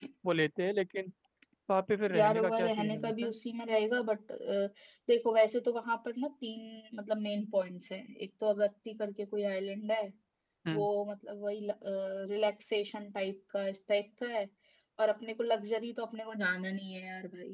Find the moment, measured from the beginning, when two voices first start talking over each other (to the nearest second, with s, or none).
2 s